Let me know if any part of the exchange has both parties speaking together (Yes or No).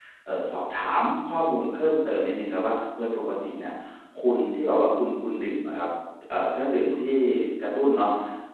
No